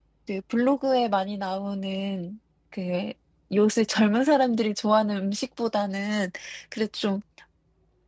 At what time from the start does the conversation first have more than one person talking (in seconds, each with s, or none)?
none